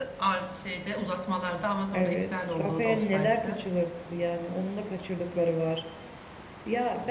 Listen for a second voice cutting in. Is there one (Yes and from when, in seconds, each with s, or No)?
Yes, from 1.9 s